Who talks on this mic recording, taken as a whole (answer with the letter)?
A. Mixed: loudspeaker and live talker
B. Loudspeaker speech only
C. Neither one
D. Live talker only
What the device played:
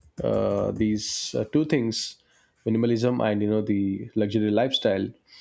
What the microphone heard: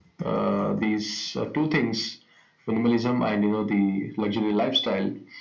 B